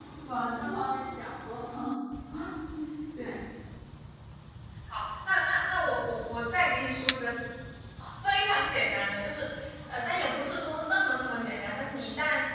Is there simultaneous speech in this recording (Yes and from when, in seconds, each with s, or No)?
No